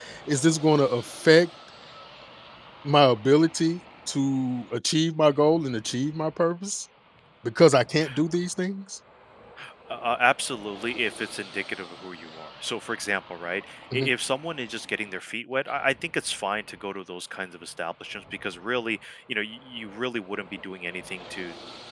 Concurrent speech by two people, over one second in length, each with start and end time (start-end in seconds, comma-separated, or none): none